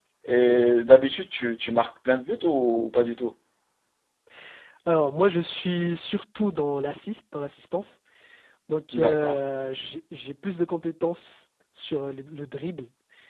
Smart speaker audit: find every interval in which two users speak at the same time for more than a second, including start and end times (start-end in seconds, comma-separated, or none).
none